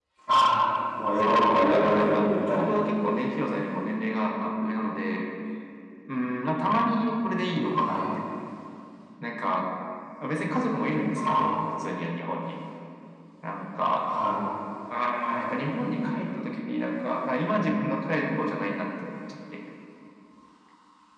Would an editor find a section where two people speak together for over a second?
Yes, from 1.2 s

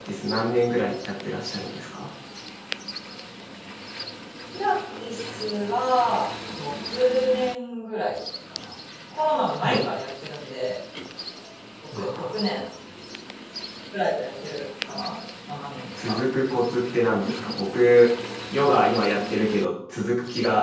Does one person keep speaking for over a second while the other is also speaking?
No

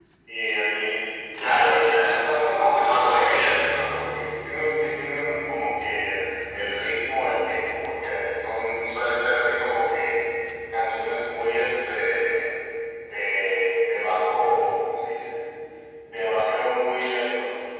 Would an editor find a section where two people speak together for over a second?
Yes, from 1.6 s

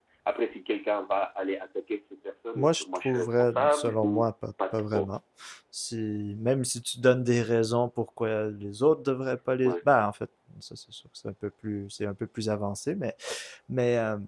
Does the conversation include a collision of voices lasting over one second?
Yes, from 2.5 s

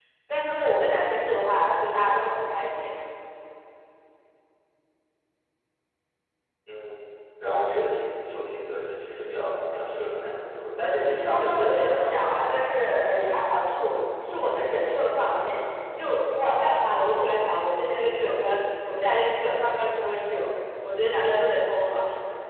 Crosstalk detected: Yes, from 10.9 s

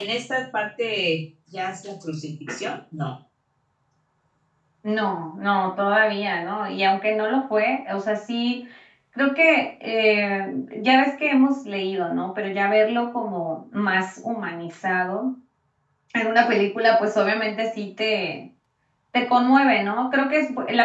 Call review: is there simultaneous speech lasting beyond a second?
No

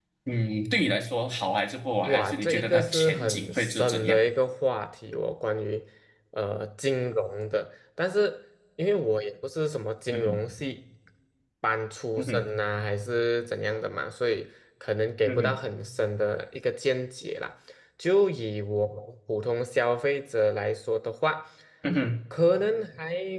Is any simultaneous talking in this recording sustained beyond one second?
Yes, from 2.0 s

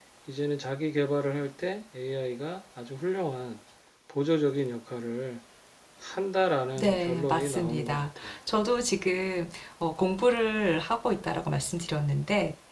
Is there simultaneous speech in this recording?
Yes, from 6.8 s

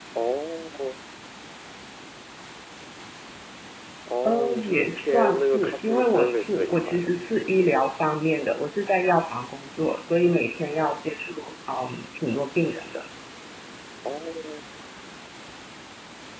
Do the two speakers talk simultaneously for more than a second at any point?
Yes, from 4.2 s

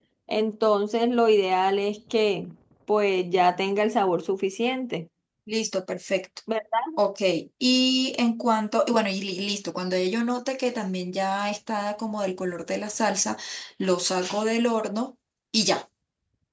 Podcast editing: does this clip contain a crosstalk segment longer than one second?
No

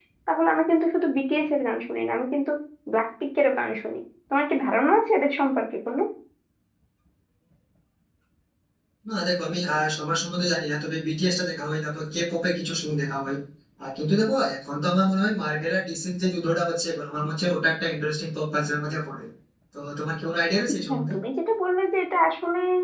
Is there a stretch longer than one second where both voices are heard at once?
No

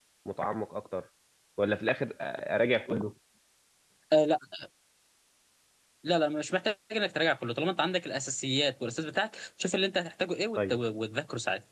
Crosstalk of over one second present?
No

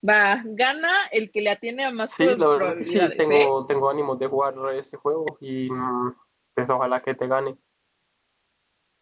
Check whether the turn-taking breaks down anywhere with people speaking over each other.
Yes, from 2.1 s

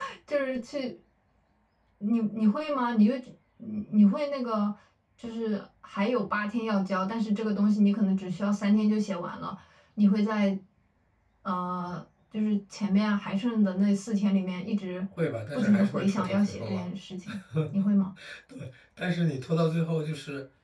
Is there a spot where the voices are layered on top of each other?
Yes, from 15.5 s

